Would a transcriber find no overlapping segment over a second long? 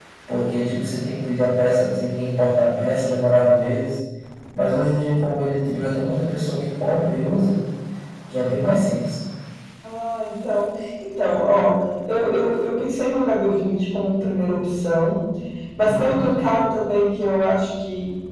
Yes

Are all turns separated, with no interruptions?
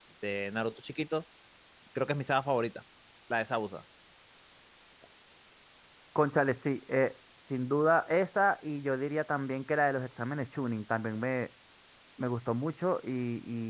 Yes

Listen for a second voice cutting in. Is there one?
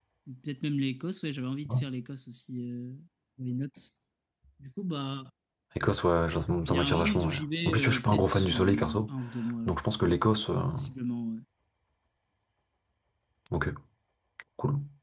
Yes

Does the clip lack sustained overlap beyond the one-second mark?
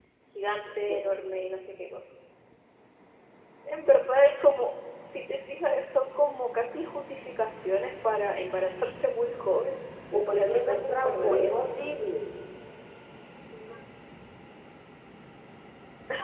No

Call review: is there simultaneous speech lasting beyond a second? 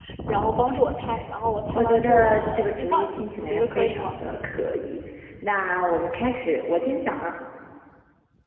Yes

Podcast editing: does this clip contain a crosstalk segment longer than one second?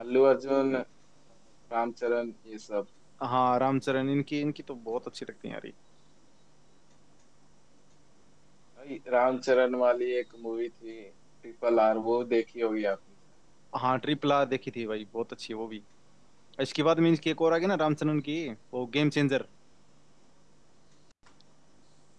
No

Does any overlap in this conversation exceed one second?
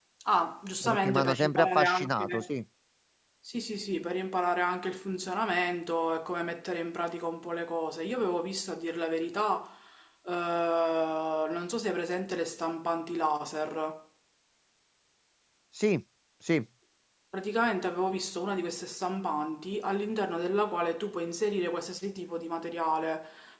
Yes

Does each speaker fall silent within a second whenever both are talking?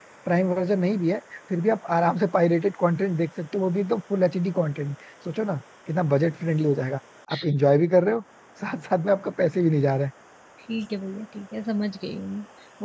Yes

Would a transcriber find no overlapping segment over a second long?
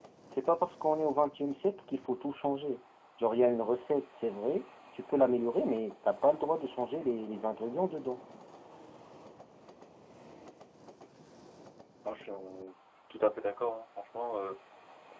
Yes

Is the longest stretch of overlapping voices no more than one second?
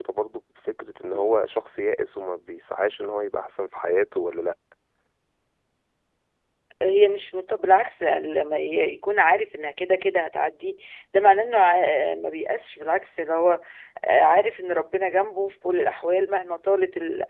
Yes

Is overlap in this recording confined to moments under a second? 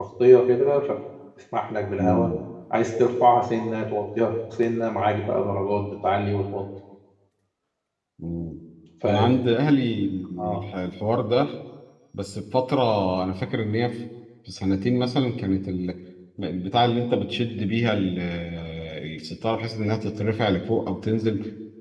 Yes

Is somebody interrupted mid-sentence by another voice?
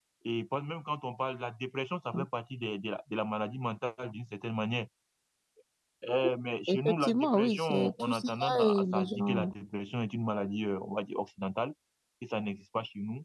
Yes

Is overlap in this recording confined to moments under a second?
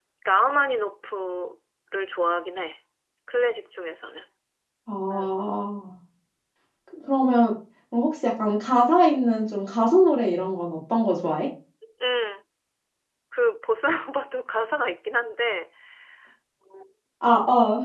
Yes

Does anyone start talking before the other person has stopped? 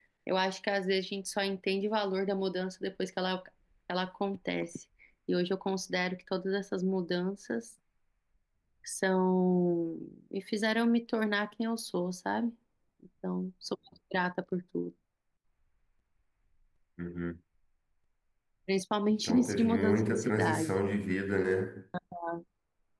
Yes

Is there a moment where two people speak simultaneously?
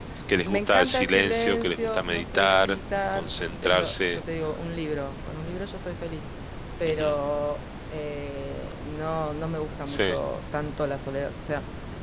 Yes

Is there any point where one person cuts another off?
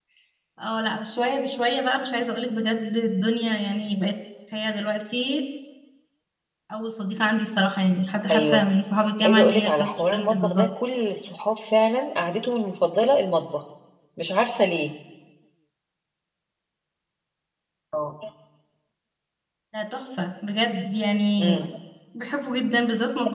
Yes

